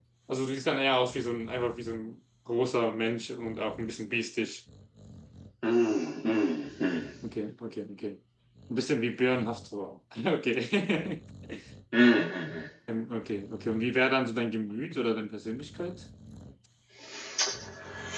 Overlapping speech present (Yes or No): No